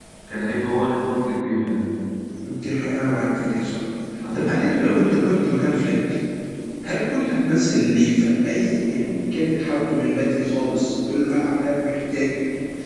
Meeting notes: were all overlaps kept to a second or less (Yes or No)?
Yes